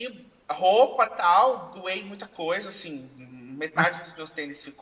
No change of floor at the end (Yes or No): Yes